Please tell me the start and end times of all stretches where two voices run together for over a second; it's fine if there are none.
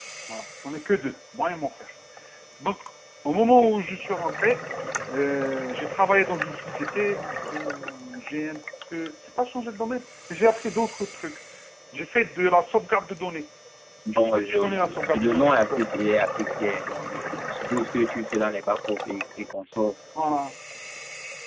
14.1-15.8

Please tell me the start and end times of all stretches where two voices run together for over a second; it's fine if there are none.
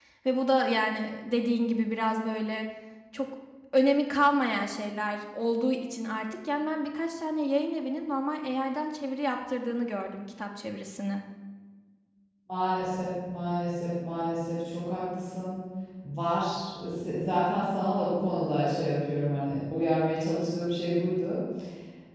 none

